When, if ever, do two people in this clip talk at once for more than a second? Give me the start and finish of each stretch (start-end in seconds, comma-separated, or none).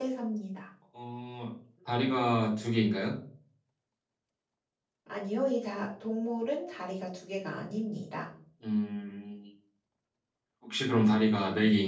none